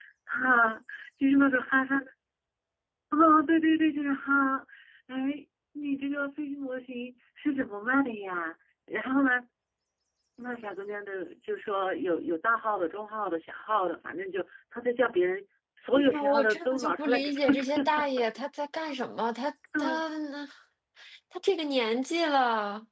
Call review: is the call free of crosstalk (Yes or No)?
No